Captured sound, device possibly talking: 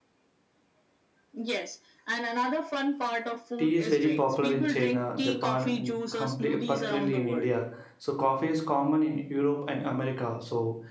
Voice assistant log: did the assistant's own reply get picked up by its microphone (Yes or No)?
Yes